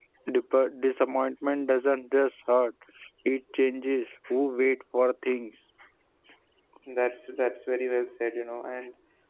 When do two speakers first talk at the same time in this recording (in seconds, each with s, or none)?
none